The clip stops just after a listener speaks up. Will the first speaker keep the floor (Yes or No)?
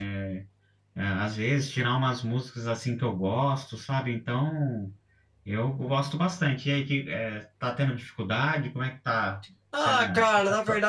No